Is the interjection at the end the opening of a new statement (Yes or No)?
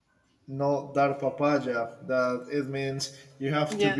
No